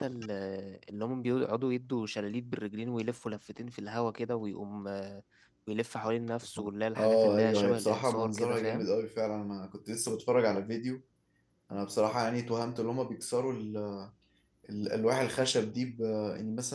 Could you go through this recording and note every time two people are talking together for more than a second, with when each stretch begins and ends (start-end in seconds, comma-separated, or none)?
7.0-8.9